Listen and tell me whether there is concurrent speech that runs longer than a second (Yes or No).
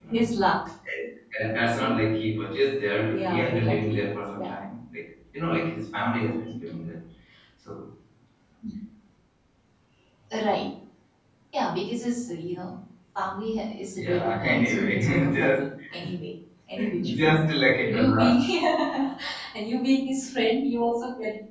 Yes